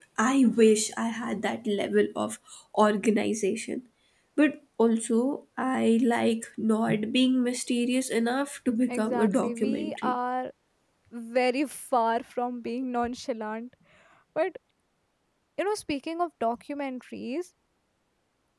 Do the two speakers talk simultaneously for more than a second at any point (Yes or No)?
Yes